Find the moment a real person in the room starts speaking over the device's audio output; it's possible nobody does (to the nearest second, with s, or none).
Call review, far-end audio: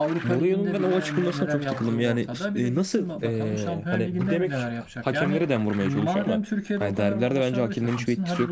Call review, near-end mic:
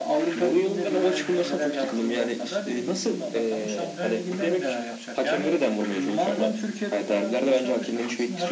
none